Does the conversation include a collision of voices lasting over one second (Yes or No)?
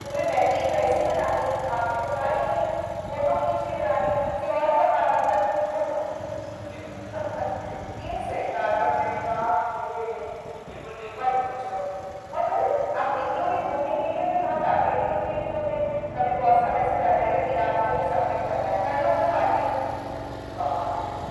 No